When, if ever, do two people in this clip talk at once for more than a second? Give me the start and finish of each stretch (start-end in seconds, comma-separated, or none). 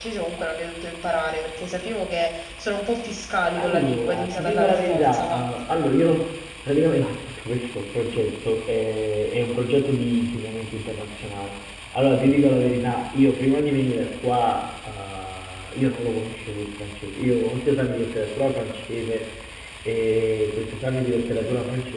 3.6-5.5